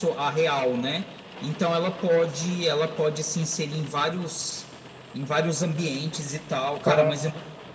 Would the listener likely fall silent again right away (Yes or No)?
Yes